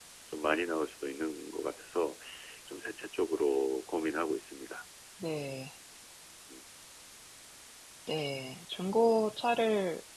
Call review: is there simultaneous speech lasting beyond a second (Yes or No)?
No